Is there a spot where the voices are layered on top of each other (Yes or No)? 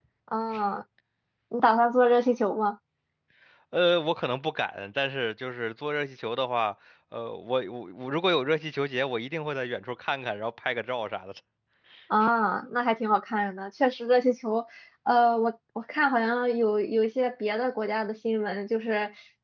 No